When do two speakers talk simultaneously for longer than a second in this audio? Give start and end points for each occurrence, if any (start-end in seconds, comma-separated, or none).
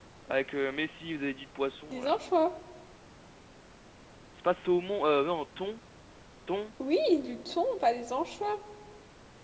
none